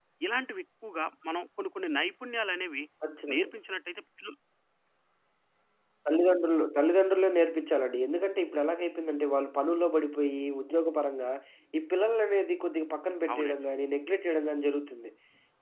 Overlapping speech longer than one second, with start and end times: none

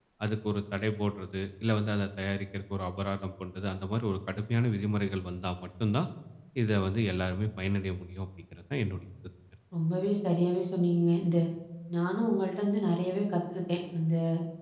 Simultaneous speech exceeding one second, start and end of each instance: none

